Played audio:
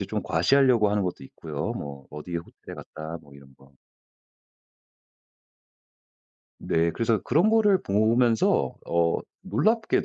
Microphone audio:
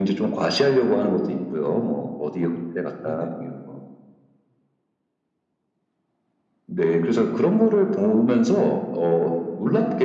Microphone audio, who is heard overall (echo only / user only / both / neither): both